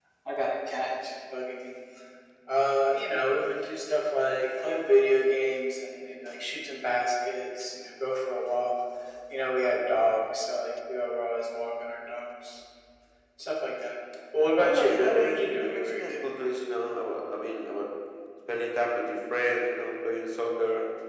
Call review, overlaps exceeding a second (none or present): present